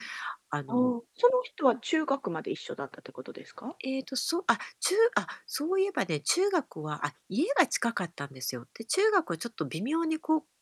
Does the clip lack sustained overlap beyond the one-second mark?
Yes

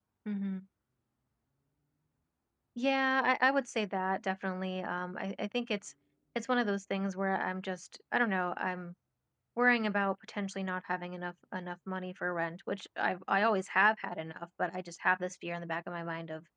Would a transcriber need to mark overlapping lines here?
No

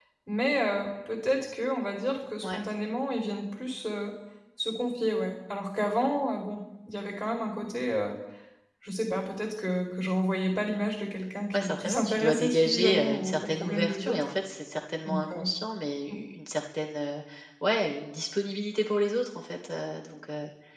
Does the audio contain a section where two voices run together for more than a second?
Yes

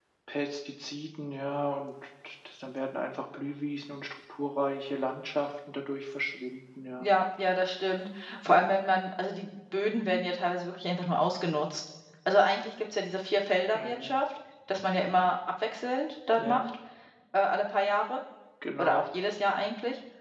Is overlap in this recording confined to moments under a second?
Yes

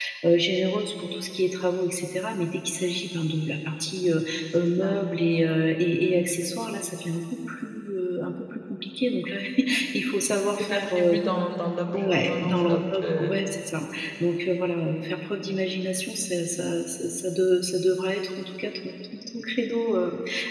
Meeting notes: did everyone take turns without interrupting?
No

